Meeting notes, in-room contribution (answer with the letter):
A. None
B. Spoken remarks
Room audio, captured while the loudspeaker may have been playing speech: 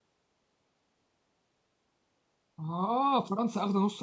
B